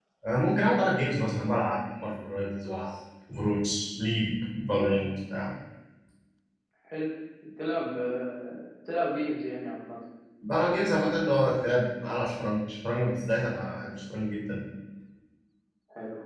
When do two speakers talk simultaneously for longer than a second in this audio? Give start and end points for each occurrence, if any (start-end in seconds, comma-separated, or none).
none